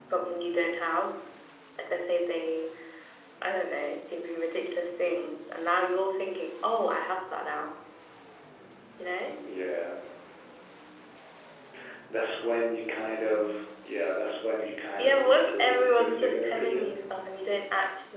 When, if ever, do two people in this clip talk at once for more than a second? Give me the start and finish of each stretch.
15.0-17.0

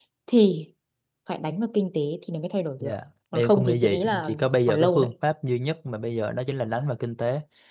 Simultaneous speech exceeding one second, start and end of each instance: 3.3-5.1

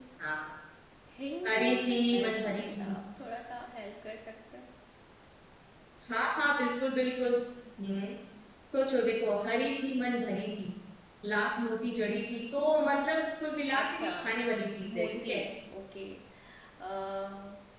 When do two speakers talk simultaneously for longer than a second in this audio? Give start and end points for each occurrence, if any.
1.5-2.9

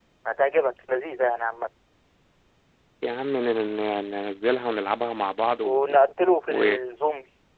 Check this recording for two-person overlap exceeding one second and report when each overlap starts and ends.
none

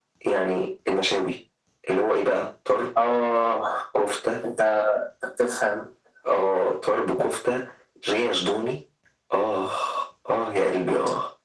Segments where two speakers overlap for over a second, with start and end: none

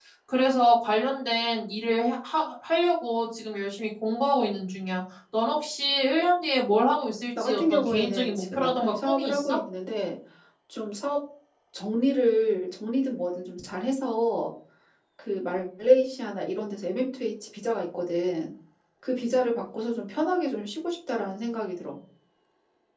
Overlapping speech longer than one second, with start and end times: 7.4-9.6

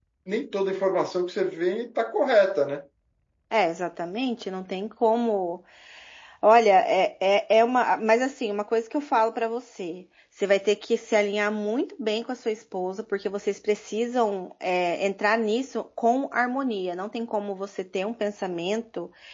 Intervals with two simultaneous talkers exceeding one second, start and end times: none

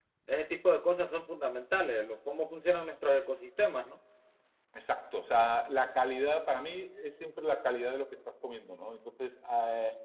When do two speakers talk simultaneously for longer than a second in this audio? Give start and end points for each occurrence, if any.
none

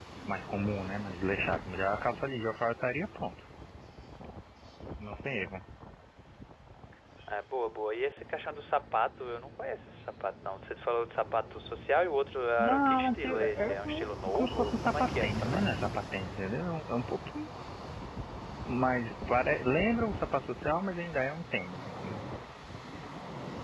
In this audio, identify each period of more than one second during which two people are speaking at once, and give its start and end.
12.6-15.6

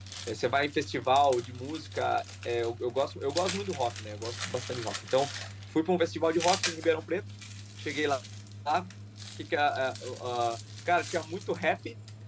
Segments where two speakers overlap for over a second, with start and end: none

